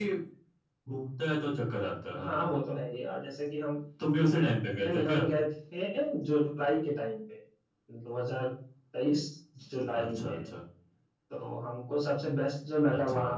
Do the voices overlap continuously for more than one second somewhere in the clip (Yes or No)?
No